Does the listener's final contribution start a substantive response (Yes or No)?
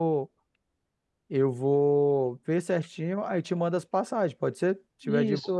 Yes